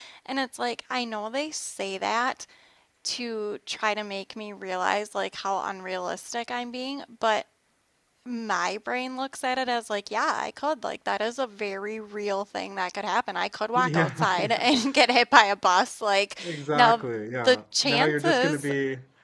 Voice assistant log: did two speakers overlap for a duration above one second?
Yes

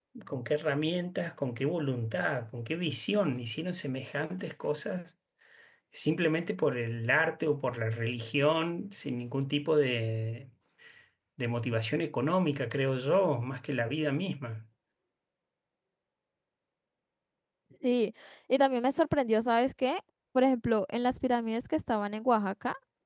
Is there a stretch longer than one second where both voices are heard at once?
No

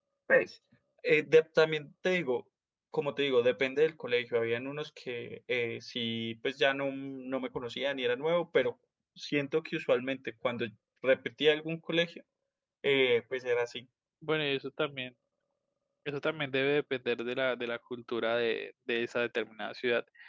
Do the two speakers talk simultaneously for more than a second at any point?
No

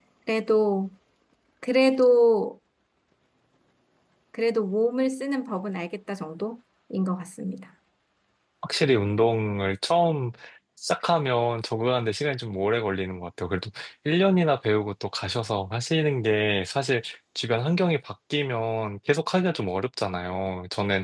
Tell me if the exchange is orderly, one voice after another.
Yes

